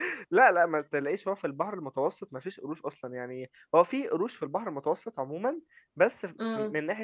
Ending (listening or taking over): listening